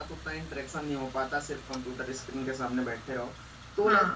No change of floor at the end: Yes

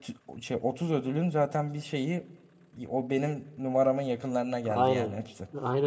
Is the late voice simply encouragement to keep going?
No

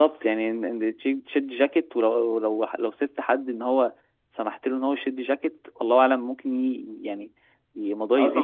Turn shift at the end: Yes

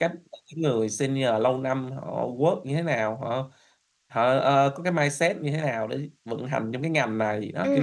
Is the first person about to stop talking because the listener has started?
Yes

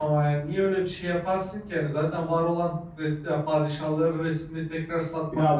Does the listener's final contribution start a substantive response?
Yes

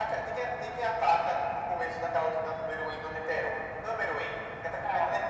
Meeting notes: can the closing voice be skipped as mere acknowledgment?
Yes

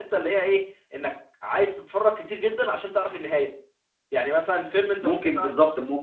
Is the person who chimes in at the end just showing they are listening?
No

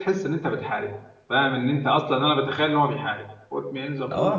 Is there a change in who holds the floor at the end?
Yes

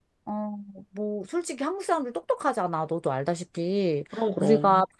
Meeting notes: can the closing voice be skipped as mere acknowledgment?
Yes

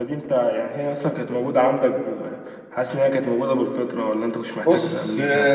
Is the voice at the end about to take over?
Yes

